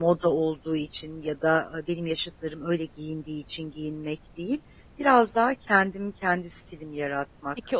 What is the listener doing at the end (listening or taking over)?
taking over